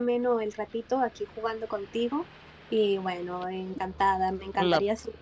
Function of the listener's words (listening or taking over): listening